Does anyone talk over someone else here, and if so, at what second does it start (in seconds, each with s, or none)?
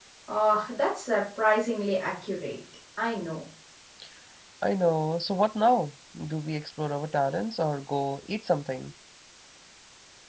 none